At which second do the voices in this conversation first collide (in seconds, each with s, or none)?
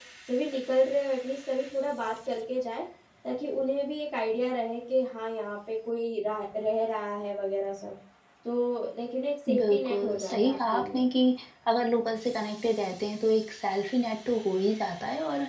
9.5 s